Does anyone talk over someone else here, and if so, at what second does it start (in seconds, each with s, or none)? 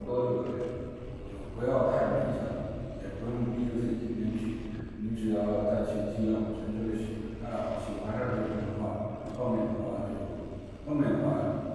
none